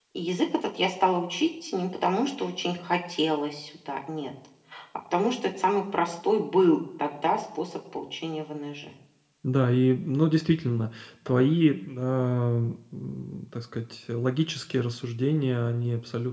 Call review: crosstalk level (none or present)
none